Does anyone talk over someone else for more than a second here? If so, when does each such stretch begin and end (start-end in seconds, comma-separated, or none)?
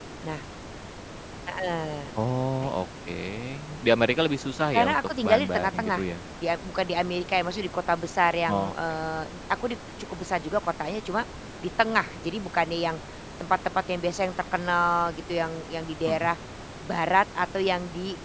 4.7-6.0